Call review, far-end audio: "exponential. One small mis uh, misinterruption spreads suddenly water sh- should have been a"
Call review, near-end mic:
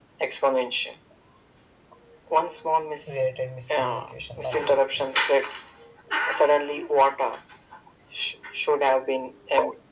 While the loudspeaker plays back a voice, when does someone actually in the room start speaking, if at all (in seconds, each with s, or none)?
3.0 s